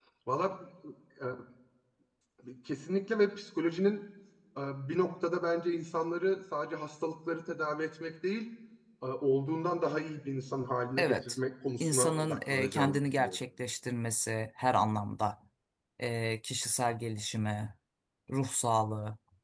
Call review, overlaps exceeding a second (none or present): present